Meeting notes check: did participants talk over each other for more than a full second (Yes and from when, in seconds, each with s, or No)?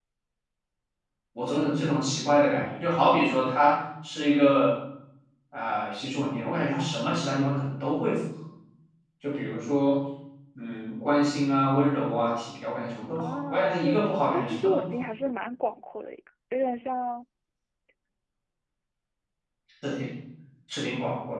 Yes, from 13.2 s